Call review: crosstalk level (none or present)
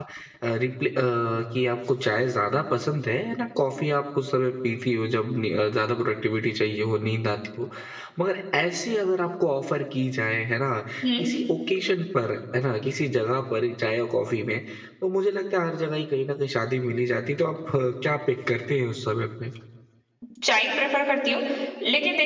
none